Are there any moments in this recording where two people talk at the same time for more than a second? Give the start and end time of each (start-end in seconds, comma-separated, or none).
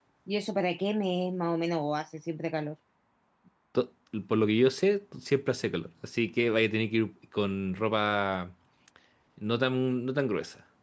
none